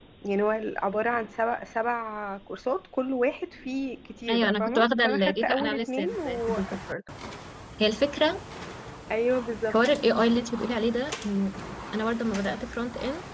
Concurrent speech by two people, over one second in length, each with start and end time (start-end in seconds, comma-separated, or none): 4.3-6.6